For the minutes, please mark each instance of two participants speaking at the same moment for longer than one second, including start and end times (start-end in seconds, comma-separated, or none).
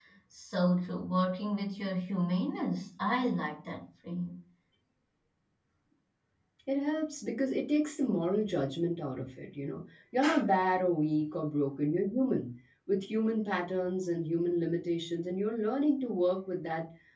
none